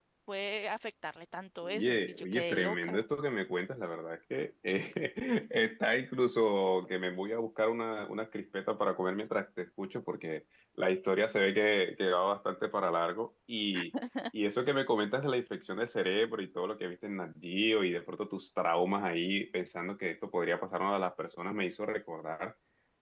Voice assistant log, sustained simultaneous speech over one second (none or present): present